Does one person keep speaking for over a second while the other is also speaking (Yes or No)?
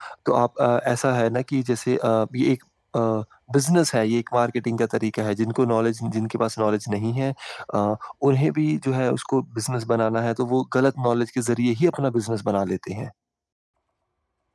No